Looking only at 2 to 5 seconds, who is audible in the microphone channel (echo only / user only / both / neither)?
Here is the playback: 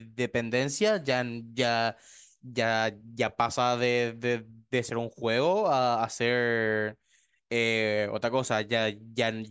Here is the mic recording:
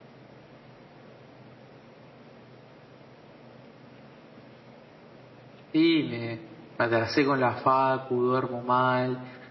neither